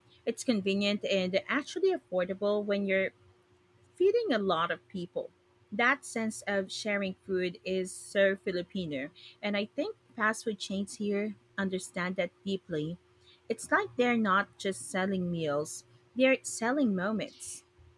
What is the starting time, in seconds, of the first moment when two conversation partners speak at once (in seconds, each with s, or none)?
none